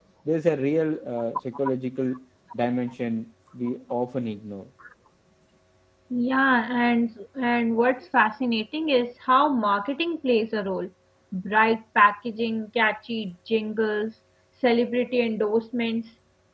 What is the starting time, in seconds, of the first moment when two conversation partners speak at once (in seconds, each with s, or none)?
none